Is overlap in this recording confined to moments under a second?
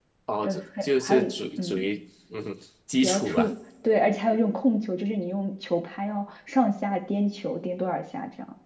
No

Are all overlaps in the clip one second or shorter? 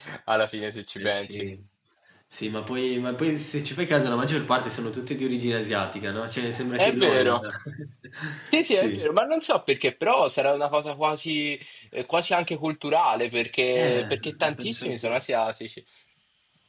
No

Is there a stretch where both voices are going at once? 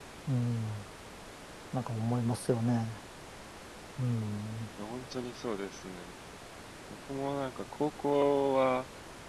No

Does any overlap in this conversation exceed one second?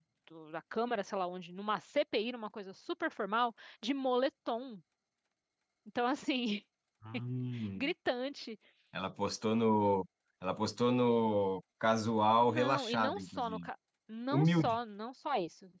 Yes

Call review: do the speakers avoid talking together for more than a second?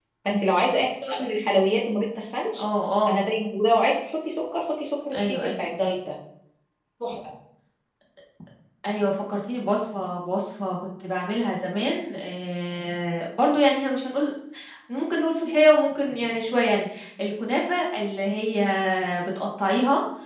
Yes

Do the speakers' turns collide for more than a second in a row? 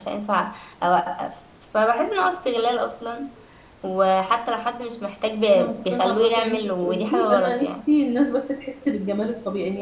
Yes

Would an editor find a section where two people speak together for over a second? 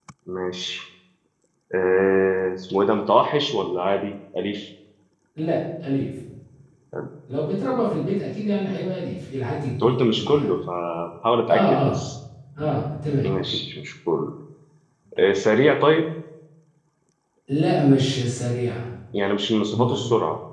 No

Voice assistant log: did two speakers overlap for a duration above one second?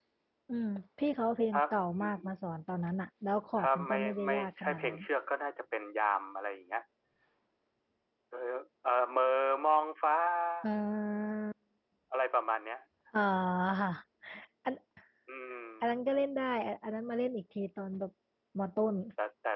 Yes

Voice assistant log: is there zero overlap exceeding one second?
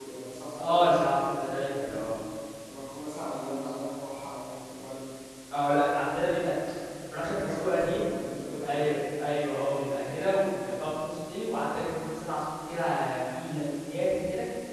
No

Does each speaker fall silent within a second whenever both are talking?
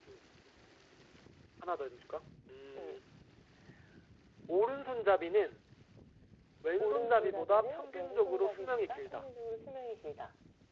No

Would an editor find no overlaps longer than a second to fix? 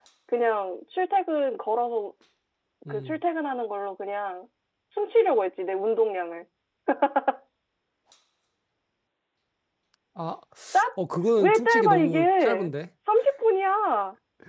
No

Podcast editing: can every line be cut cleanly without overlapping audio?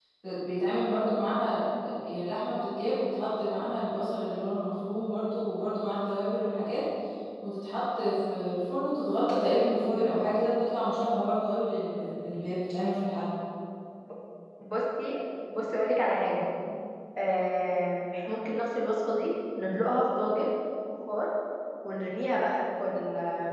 Yes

